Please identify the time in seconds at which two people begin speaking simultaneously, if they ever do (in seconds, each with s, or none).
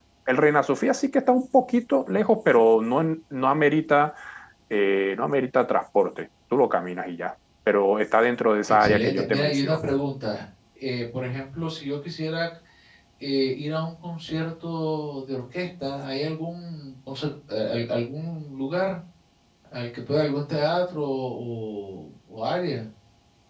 8.7 s